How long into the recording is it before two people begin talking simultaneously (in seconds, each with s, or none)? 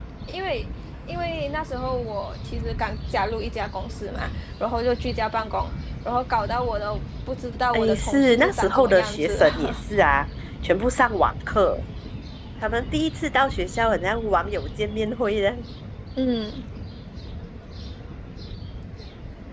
7.7 s